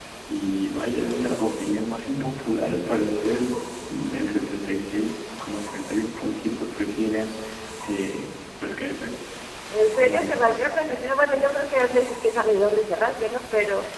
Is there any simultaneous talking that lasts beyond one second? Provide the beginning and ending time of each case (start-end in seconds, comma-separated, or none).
10.0-11.5